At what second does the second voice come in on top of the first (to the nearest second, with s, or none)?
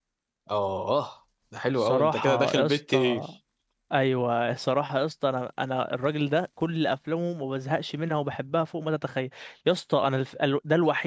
2 s